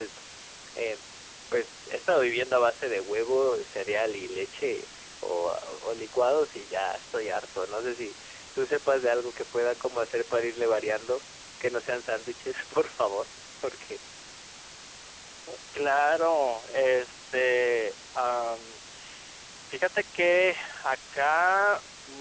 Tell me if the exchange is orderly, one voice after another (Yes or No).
Yes